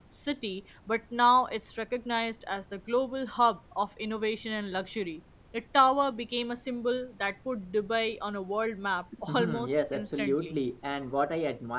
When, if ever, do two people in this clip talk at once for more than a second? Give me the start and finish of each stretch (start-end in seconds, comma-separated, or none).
9.3-10.6